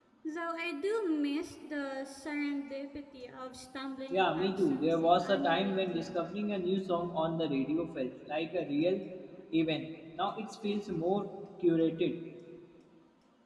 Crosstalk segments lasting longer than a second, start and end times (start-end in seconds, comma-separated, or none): 4.1-6.2